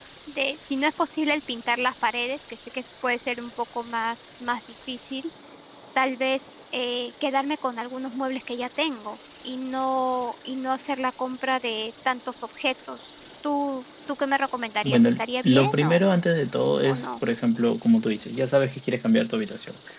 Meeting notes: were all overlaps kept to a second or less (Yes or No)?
No